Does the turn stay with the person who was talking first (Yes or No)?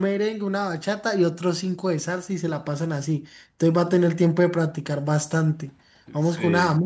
Yes